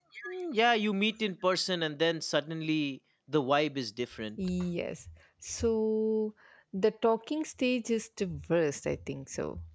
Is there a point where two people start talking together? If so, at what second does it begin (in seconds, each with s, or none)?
none